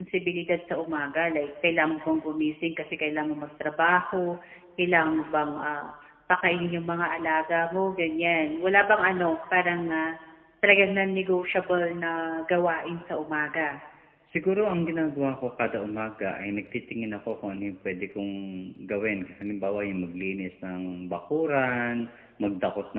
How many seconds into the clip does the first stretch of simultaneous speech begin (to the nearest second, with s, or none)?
none